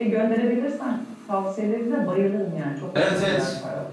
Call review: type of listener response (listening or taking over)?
taking over